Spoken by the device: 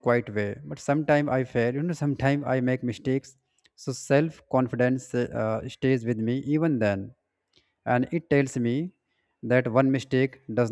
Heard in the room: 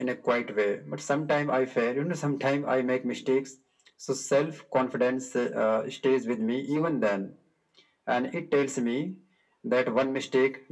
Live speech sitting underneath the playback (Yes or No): Yes